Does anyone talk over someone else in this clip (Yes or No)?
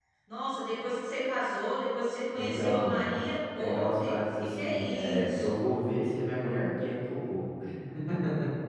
Yes